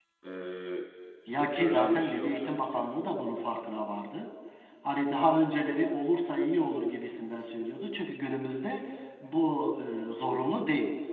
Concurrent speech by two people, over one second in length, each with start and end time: 1.3-2.8

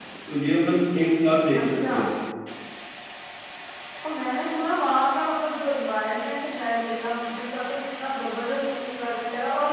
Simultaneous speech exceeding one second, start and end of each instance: none

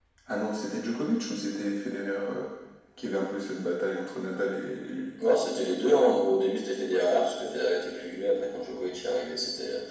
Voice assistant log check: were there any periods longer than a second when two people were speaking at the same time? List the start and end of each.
none

